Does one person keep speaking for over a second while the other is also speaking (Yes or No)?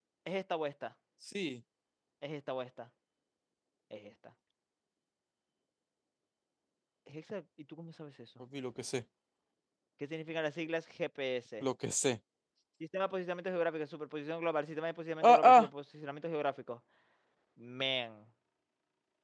No